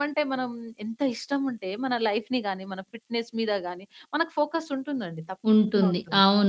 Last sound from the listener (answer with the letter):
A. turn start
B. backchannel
A